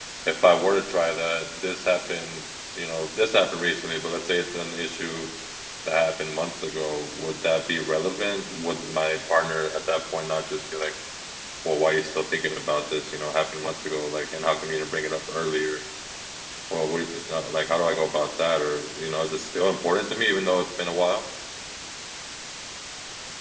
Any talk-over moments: No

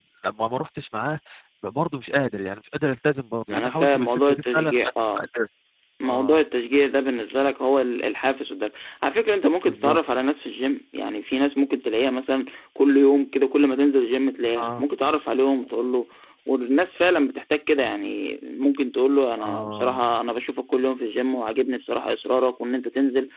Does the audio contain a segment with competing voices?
Yes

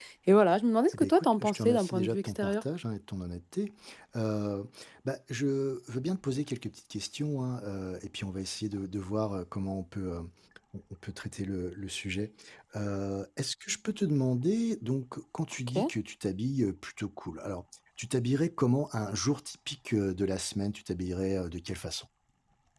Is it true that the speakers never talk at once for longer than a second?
No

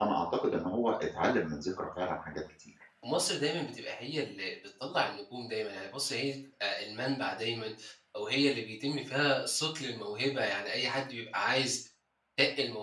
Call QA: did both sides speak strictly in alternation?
Yes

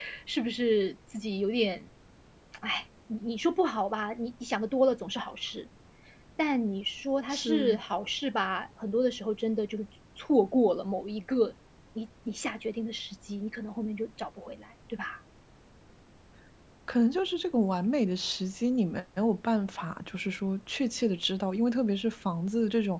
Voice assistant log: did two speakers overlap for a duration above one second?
No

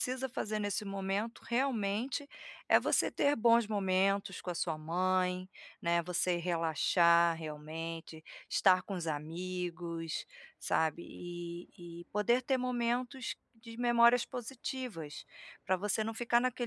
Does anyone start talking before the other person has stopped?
No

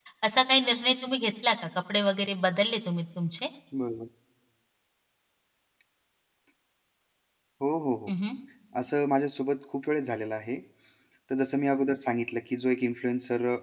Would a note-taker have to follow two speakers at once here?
No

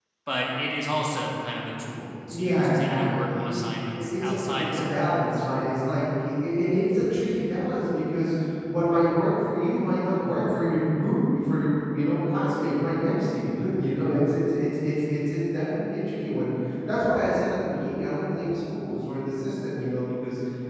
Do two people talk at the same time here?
Yes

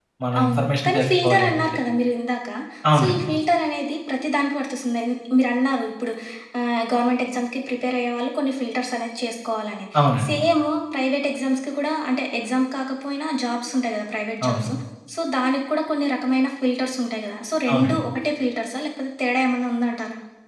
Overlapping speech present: Yes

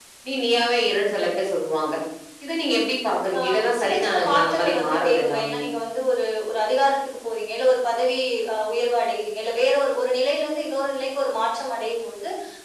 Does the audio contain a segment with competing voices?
Yes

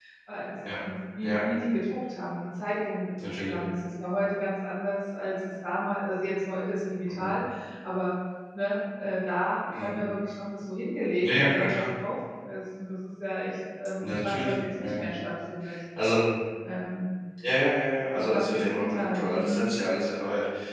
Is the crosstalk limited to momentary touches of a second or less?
No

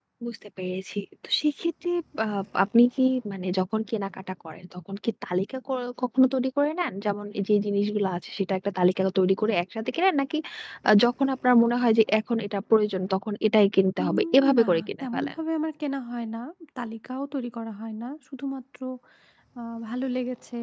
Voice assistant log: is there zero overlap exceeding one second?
No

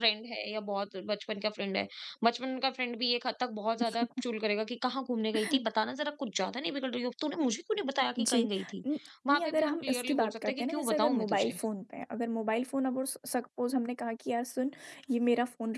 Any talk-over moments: Yes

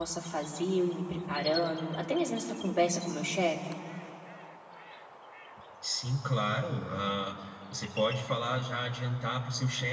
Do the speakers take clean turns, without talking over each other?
Yes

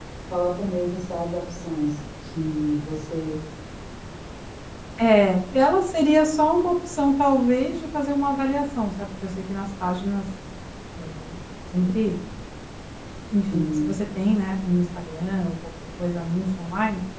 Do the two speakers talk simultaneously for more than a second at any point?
No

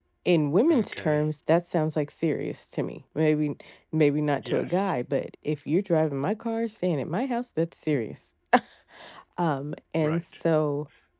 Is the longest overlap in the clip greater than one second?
No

